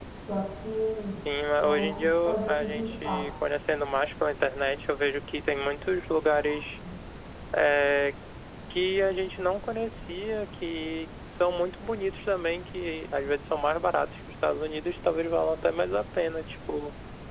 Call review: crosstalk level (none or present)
present